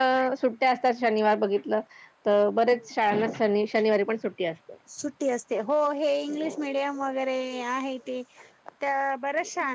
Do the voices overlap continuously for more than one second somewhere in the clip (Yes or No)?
No